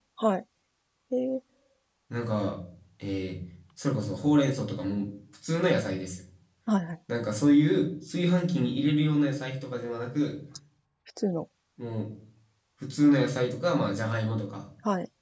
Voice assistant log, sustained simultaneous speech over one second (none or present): none